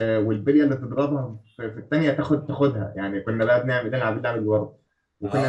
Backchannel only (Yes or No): No